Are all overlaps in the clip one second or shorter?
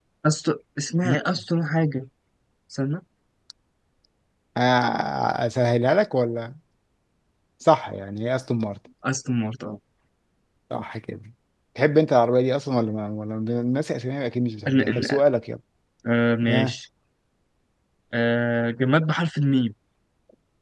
Yes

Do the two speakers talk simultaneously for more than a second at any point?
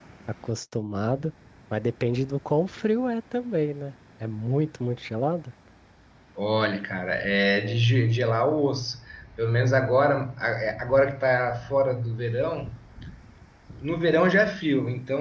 No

